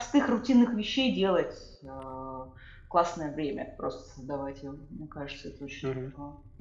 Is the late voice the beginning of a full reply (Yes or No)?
Yes